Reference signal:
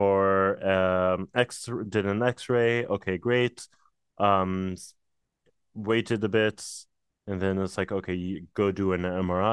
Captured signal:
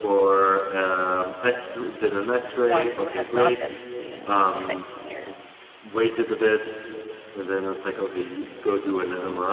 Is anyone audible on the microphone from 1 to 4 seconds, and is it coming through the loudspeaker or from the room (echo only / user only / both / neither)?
both